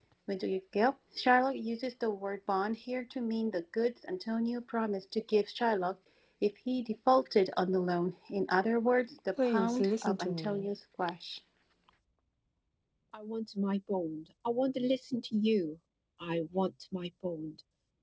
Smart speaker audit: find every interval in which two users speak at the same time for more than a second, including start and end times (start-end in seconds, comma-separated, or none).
9.4-10.7